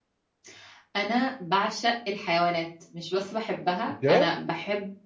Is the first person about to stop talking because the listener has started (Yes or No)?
No